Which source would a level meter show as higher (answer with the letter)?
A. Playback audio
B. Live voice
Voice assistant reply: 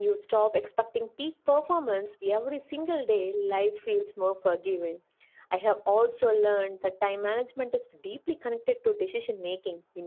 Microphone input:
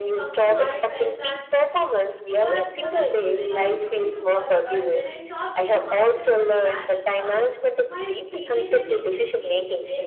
A